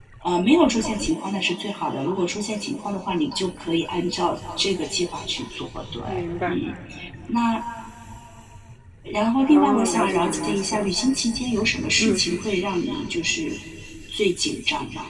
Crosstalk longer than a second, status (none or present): present